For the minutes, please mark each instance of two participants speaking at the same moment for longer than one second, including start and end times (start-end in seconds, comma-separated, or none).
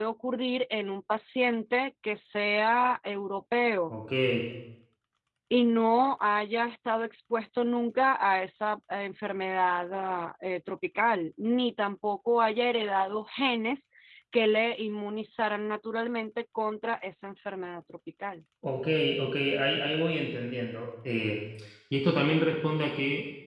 none